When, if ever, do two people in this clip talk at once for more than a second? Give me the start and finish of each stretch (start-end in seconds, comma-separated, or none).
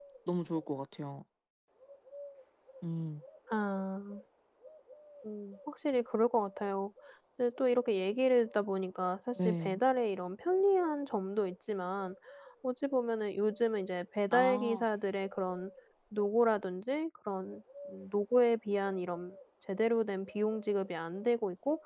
none